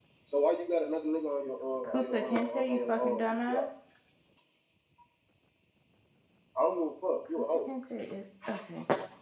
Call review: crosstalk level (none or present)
present